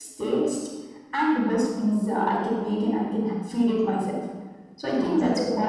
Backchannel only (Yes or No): Yes